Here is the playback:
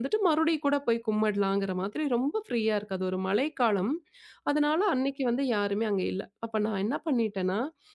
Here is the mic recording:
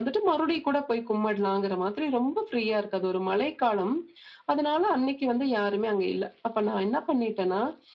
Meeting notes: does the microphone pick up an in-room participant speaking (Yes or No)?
No